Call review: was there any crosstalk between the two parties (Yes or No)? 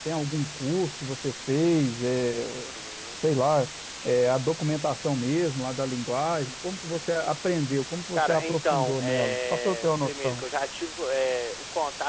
Yes